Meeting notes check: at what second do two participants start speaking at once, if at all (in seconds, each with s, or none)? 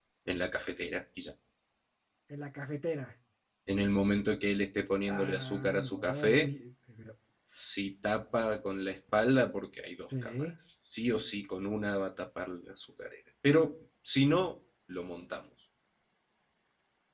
5.0 s